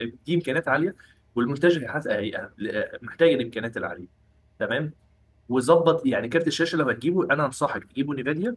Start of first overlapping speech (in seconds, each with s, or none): none